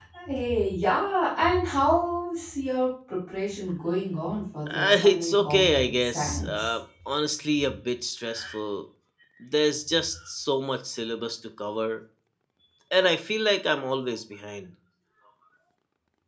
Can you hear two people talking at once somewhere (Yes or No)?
Yes